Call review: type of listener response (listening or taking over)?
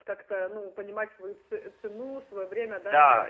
taking over